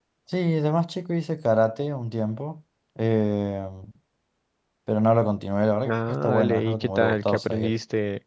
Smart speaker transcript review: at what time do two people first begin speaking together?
5.8 s

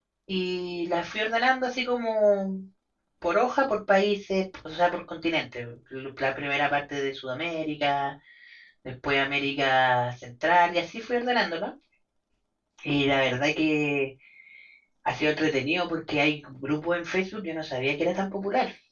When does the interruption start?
none

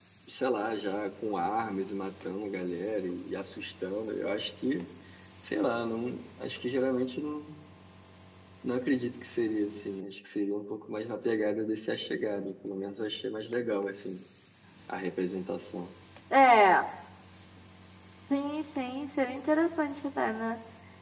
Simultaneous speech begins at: none

